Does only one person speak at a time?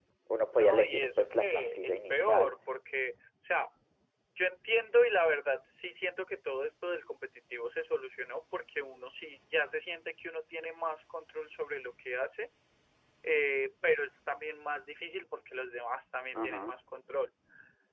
No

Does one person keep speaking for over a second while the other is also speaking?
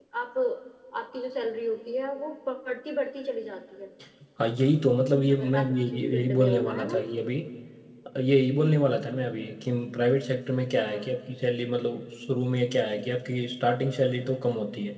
Yes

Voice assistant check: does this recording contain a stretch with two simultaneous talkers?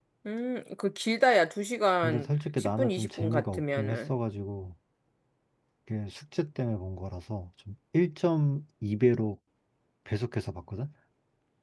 Yes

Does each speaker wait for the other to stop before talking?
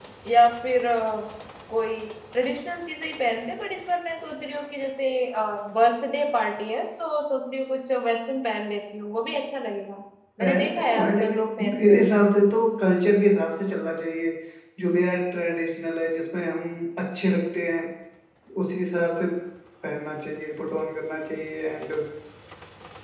No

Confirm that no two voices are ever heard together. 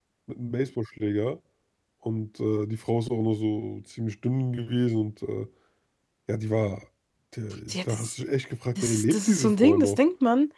No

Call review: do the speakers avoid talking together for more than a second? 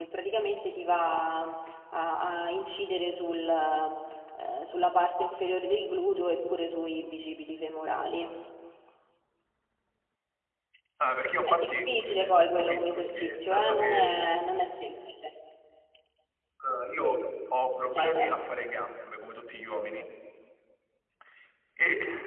No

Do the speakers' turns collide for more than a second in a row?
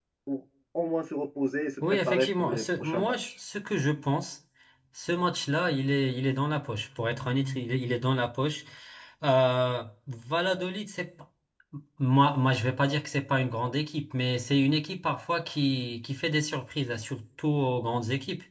Yes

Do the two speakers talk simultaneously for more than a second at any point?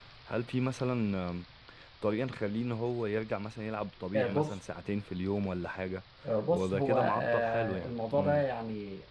Yes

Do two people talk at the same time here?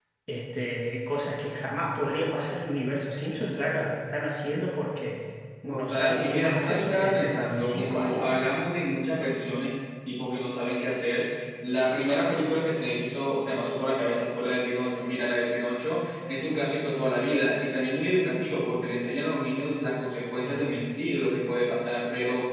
Yes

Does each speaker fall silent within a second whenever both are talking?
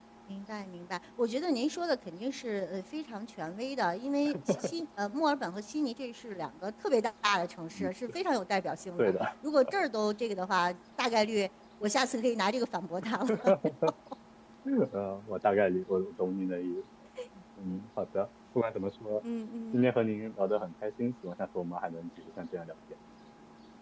Yes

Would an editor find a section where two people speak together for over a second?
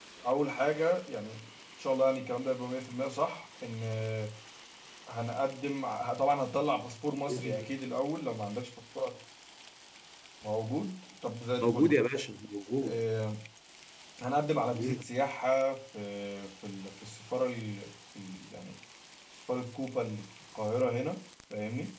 No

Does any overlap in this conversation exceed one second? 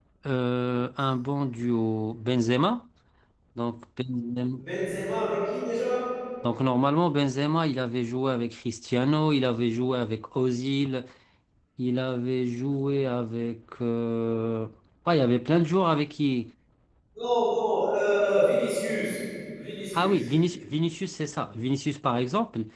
No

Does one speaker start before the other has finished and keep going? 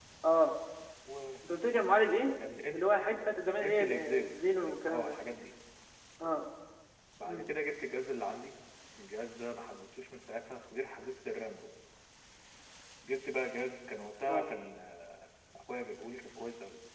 Yes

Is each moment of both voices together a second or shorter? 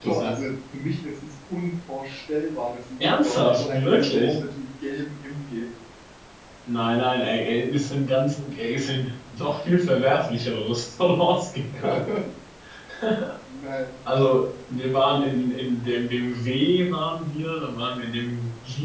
No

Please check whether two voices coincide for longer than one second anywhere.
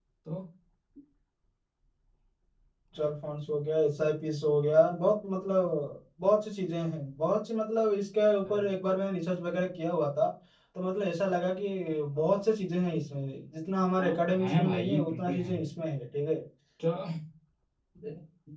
Yes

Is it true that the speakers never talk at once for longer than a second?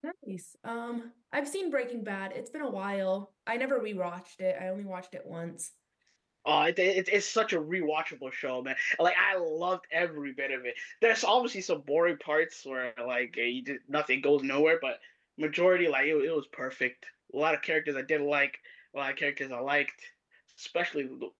Yes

